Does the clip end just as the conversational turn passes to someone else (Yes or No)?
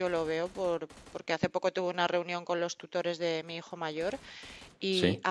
No